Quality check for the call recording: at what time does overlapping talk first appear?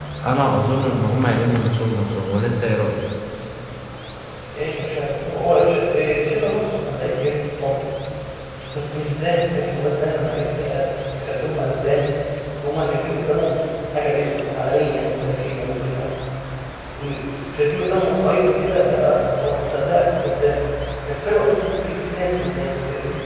none

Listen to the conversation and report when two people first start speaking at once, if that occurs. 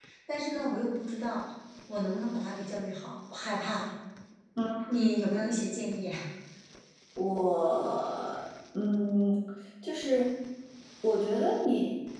none

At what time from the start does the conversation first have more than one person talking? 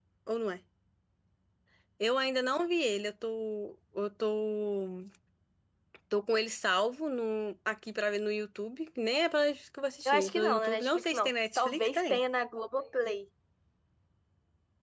10.1 s

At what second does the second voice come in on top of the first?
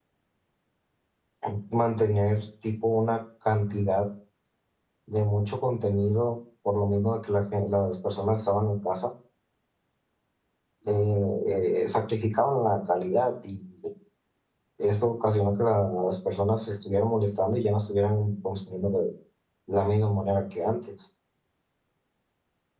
none

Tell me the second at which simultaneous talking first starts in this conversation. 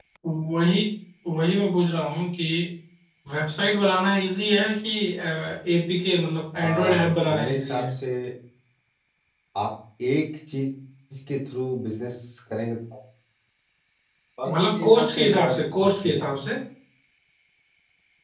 6.6 s

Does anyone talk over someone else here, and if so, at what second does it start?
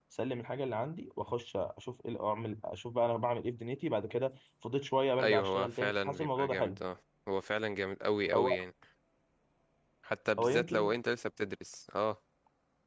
5.2 s

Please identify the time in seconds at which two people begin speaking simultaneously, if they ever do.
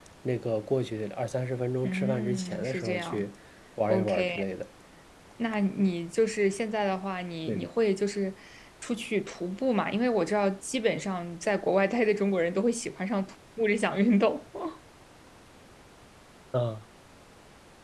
1.8 s

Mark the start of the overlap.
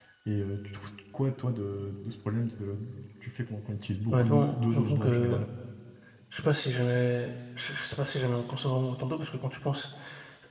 4.1 s

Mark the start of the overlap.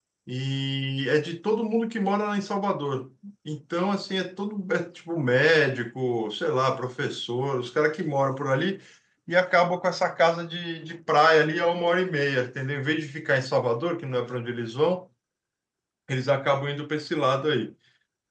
none

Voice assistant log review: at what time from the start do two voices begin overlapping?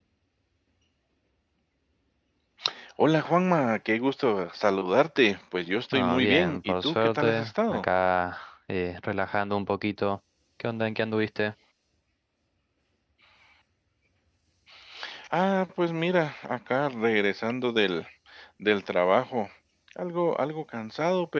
5.9 s

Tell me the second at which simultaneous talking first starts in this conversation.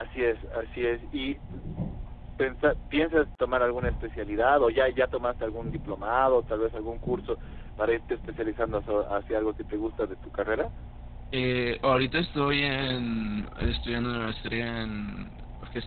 none

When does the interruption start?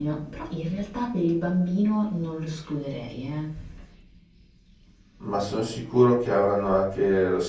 none

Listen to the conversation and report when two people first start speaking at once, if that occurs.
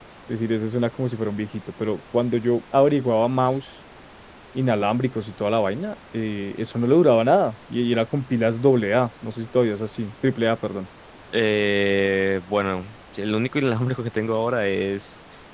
none

